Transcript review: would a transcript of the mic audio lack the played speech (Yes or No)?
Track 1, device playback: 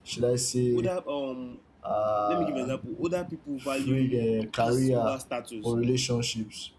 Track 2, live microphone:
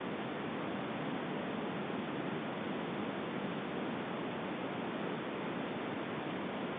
Yes